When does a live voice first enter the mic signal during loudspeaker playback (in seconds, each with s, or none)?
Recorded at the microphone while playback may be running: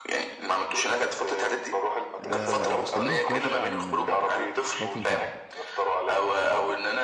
2.2 s